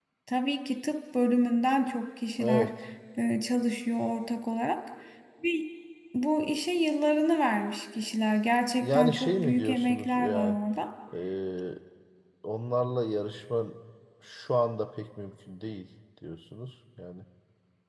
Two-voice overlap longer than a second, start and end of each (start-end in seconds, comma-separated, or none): 8.8-10.6